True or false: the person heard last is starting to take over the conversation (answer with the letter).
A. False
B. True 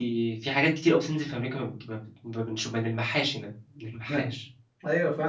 B